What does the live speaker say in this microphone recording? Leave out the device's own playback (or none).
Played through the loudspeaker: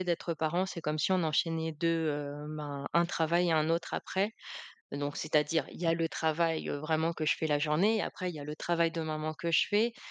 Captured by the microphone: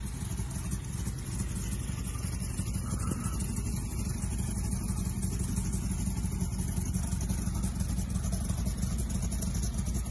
none